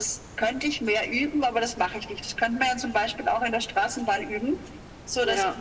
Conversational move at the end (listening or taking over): listening